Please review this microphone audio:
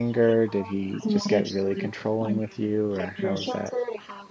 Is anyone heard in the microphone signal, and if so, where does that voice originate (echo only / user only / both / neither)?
both